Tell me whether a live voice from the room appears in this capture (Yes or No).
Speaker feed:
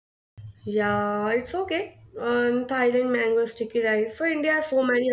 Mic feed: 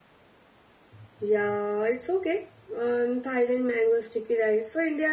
No